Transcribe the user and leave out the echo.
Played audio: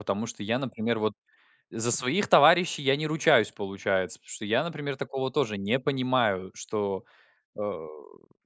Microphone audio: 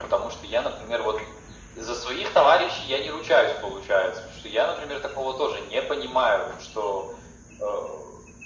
none

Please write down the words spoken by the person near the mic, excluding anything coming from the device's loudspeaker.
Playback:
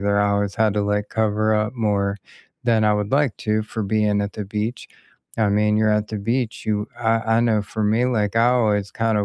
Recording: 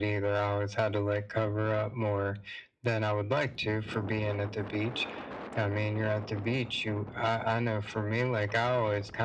none

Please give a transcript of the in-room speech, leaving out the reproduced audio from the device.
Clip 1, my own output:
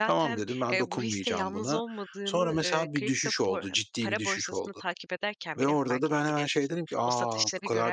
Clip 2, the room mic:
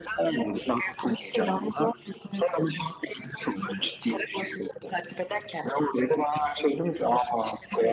none

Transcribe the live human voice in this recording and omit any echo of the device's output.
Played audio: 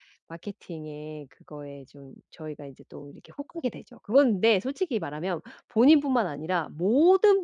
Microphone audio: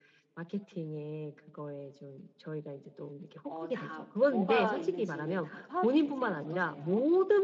어 다 뭐가 있는지는 다 파악이 되세요? 어떠세요?

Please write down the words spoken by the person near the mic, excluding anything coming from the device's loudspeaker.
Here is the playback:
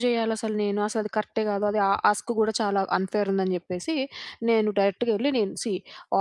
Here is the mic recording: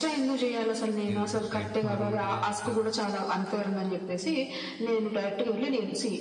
మీరింత స్ట్రెయిట్ ఫార్వర్డ్‌గా ఇంత

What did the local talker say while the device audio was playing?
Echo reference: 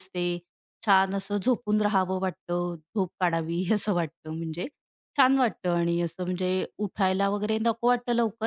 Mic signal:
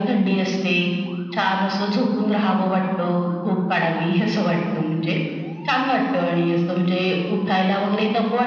none

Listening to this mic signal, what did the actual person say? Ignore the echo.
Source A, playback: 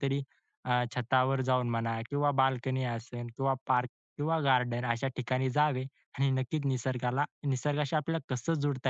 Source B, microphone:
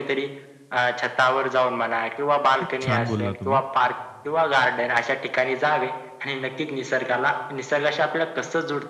खूप छान बोलला तुम्ही.

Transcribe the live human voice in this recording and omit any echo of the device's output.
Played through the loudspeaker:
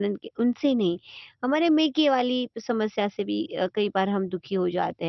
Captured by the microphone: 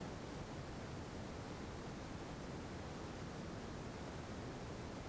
none

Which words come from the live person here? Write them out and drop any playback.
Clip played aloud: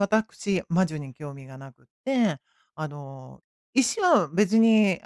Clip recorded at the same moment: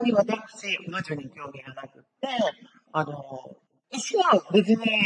none

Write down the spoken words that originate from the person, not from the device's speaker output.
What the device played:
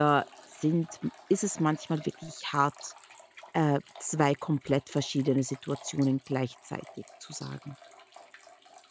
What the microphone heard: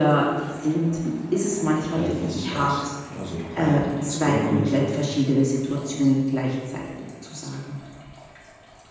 äh, von sich aus. Also, keiner hat ihn gezwungen oder so,

